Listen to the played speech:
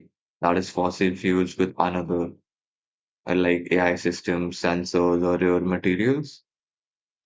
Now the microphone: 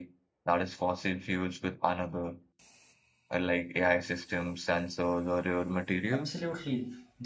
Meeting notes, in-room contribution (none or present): present